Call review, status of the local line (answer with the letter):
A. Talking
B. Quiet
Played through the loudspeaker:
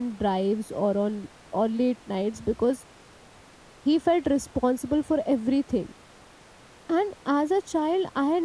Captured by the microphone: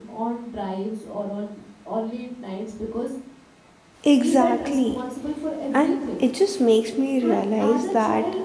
A